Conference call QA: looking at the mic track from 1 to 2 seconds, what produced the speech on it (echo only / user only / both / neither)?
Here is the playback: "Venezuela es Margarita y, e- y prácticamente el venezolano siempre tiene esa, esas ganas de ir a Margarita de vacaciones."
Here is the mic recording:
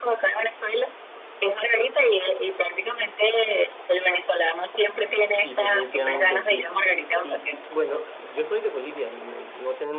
echo only